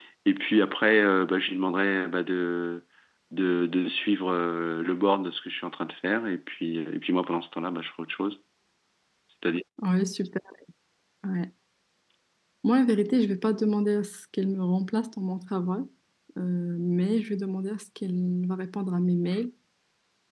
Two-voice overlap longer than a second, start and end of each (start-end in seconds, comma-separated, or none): none